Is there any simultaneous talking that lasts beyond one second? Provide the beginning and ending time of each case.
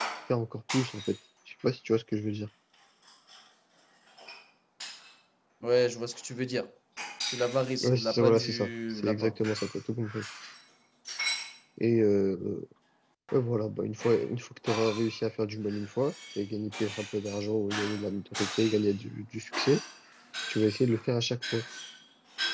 7.8-9.4

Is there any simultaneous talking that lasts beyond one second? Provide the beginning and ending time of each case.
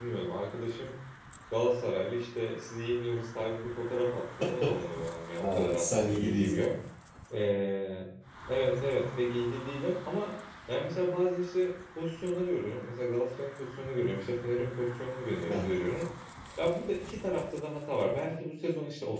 5.4-6.7

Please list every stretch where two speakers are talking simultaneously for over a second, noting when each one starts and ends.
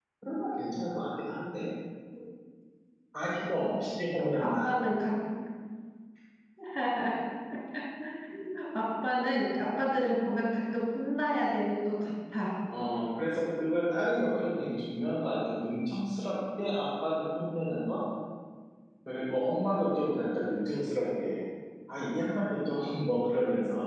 none

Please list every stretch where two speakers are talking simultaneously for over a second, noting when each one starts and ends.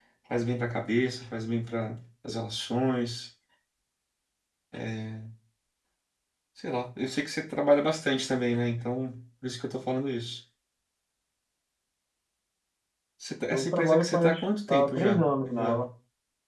13.5-15.9

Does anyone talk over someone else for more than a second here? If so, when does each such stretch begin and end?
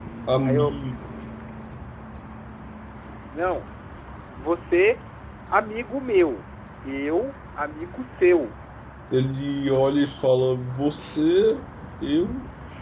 none

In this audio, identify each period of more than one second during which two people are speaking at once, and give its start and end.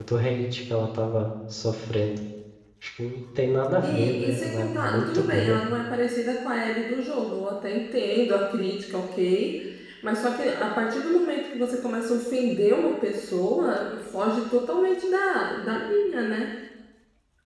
3.8-5.6

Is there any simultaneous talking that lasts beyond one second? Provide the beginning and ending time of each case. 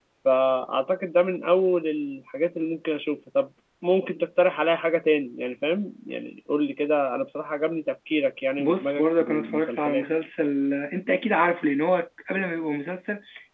8.6-10.1

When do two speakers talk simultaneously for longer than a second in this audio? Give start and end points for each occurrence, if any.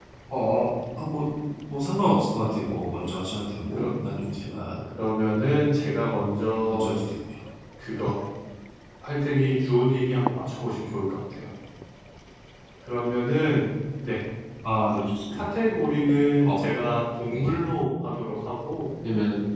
none

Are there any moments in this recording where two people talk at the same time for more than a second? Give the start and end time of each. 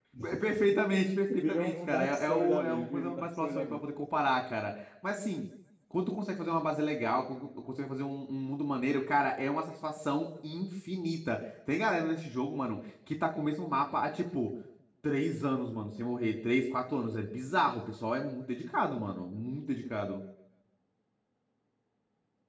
1.4-3.6

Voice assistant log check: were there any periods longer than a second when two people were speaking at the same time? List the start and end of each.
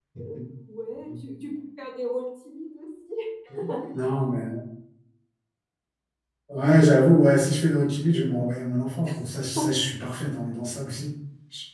none

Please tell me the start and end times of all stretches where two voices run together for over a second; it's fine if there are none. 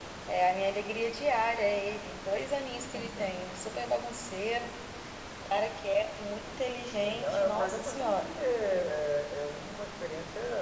7.0-8.3

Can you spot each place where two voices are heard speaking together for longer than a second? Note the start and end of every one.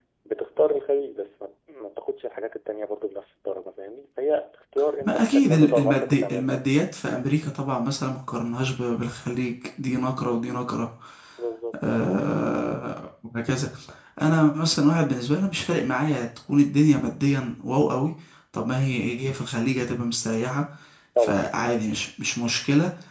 5.0-6.5

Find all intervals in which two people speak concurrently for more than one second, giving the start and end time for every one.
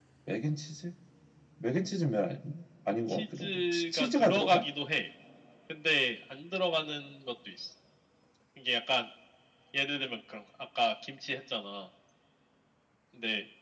3.1-4.6

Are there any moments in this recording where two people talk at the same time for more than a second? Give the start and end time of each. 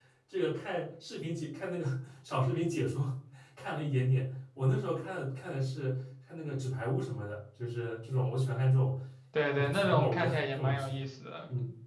9.5-10.9

